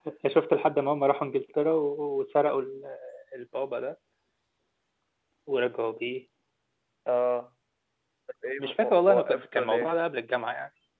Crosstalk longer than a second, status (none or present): present